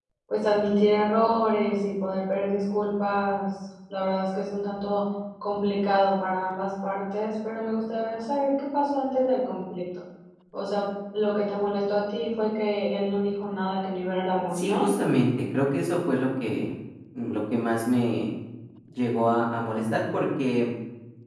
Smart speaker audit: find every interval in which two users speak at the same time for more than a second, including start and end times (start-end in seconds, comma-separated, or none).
none